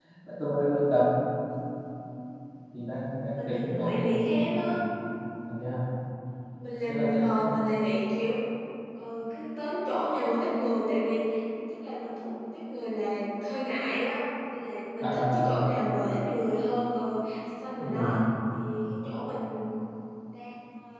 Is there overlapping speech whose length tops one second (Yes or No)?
Yes